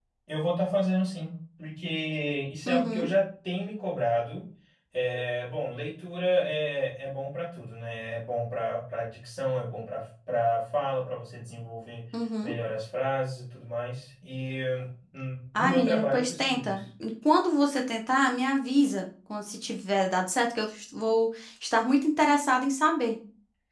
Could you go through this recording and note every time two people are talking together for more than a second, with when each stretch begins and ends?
15.5-16.8

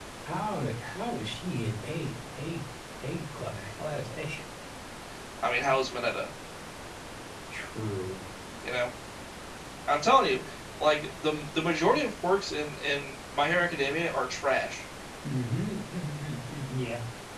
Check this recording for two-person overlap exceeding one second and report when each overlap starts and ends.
none

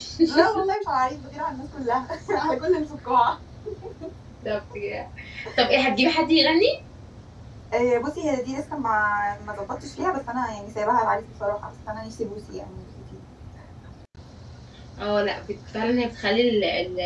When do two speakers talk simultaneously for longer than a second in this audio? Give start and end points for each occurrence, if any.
none

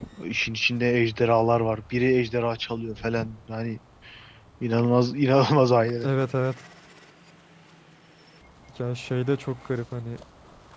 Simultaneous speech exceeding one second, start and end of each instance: none

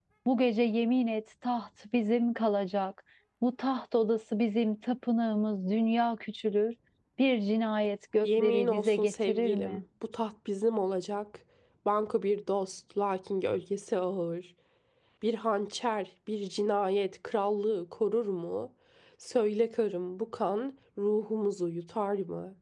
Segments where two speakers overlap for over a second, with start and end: 8.2-9.8

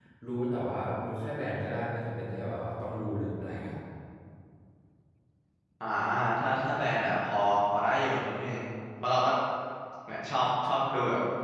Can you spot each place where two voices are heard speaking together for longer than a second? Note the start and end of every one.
none

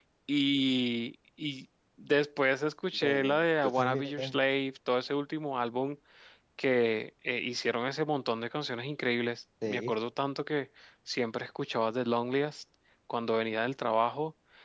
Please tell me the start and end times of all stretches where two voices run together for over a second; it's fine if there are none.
2.9-4.4

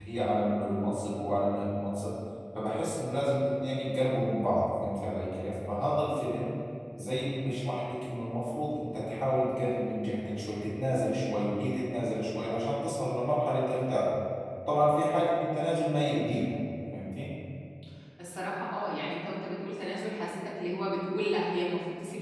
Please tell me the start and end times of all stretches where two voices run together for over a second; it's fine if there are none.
none

